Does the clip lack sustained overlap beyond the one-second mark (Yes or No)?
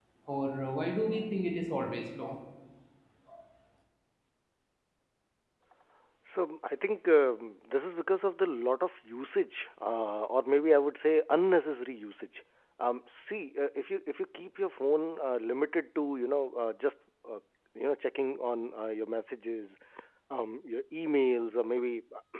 Yes